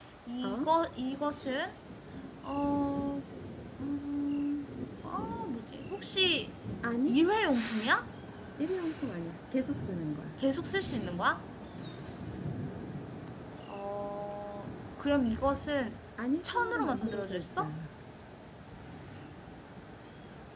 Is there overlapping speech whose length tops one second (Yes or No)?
Yes